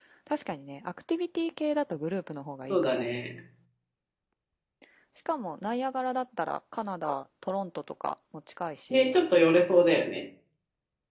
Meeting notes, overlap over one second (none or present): none